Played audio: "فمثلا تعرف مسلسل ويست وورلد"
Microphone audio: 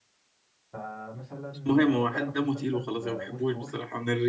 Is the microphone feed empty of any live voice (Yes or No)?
No